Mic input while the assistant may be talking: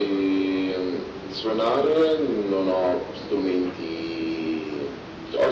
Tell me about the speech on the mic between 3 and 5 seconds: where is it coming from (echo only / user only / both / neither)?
echo only